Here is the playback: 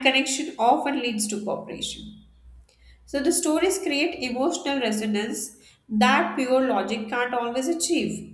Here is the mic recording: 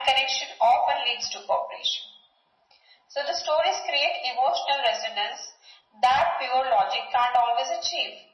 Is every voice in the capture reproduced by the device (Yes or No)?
Yes